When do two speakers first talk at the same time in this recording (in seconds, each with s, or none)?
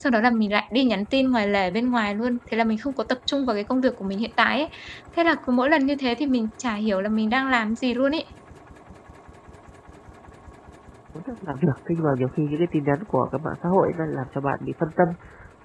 none